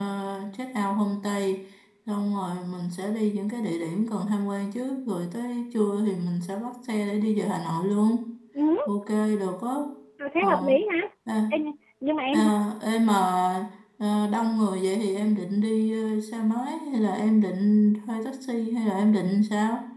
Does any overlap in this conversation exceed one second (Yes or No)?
No